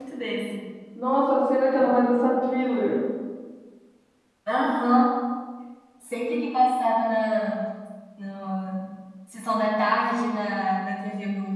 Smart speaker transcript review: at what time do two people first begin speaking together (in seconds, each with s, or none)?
none